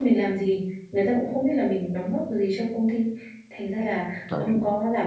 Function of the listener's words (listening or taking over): listening